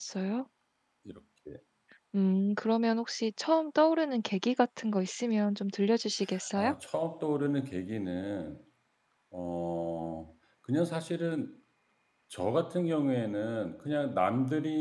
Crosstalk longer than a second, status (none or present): none